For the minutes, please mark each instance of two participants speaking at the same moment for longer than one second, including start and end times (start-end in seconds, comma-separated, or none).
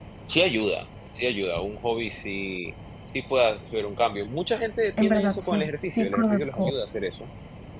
5.0-6.7